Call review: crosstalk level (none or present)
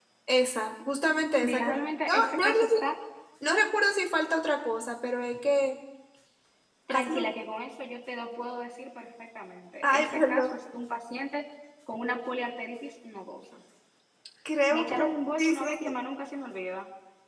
present